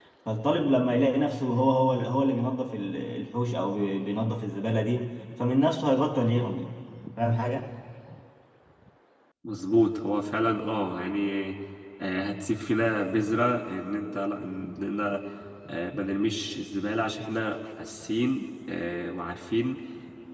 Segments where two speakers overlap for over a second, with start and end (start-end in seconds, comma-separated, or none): none